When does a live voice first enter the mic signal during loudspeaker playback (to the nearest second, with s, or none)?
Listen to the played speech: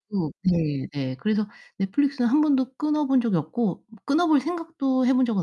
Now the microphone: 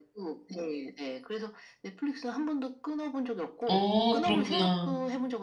4 s